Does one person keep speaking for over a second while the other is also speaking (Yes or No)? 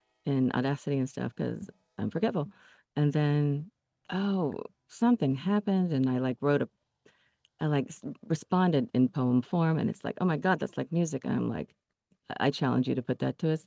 No